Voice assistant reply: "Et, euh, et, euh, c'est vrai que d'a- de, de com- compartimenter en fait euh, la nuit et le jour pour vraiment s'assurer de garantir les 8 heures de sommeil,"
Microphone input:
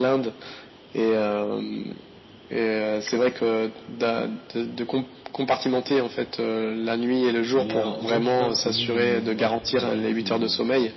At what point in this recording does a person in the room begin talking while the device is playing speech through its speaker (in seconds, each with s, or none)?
7.5 s